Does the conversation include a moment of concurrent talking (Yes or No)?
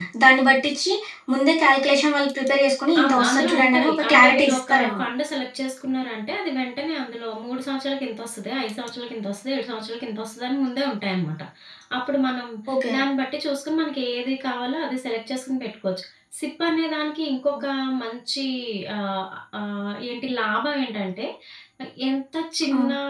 Yes